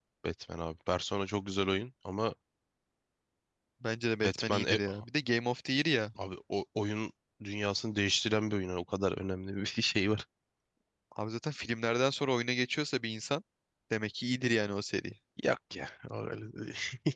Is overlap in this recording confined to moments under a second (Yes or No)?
Yes